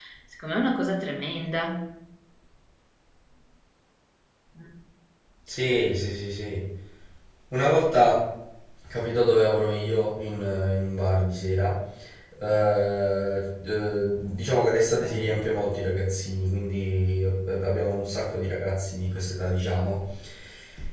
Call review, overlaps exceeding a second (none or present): none